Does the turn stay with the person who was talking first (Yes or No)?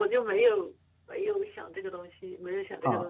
No